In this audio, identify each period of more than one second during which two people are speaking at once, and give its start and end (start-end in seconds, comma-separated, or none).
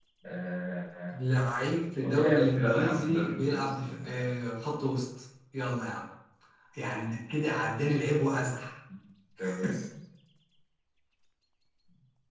2.0-4.3